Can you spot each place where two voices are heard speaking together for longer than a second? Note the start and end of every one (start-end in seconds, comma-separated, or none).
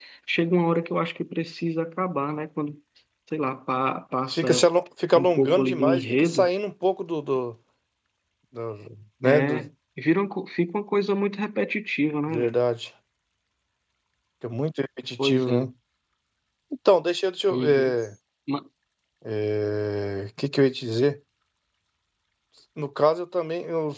5.1-6.5